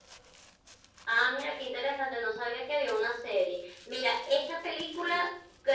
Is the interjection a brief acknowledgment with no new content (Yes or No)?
Yes